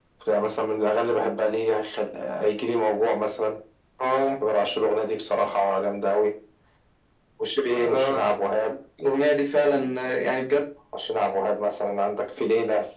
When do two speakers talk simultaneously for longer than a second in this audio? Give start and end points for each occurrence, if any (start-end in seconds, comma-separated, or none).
none